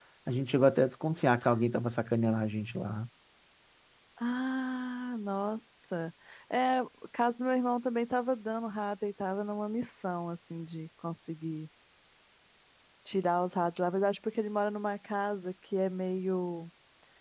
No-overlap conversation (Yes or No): Yes